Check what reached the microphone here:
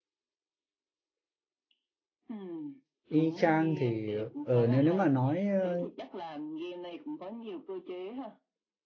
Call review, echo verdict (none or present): present